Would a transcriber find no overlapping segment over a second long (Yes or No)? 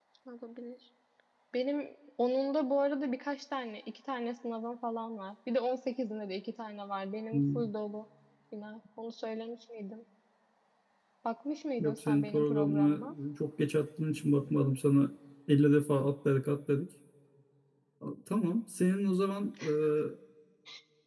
No